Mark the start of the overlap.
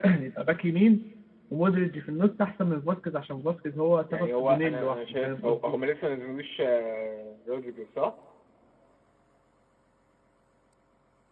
4 s

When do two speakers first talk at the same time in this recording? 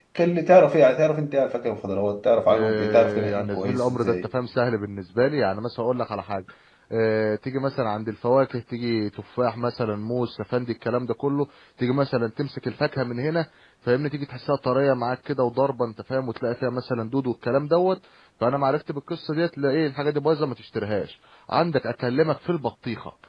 2 s

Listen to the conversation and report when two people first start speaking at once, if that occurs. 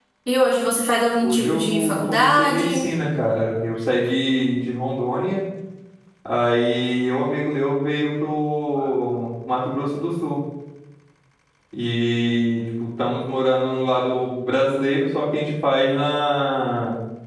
1 s

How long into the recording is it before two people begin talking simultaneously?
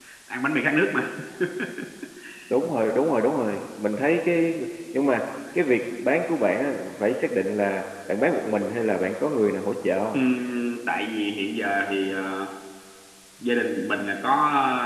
none

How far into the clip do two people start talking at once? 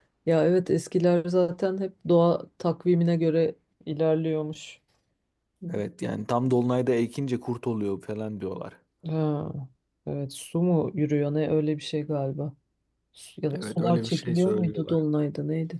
14 s

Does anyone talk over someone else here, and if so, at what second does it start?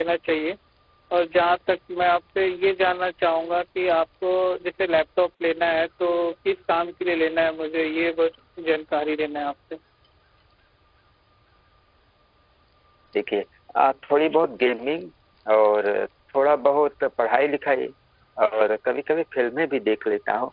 none

